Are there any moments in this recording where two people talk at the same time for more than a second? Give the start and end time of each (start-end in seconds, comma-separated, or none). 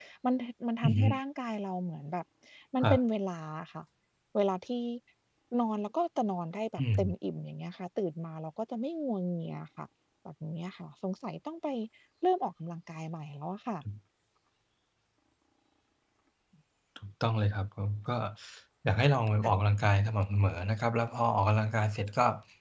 none